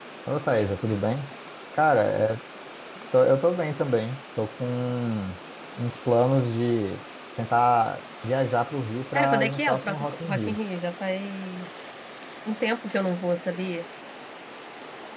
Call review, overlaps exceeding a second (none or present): present